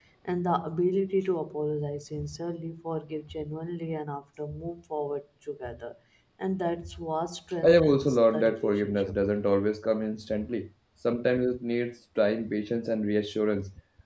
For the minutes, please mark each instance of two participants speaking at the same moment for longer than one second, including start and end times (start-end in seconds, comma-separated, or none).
7.6-9.2